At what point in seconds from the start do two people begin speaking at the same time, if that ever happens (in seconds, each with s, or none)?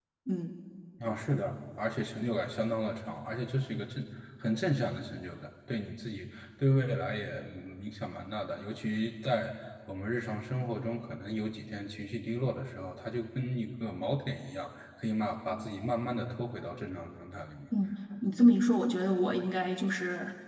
none